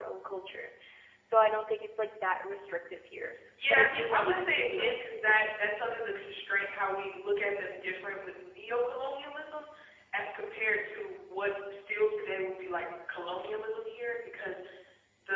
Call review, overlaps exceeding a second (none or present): present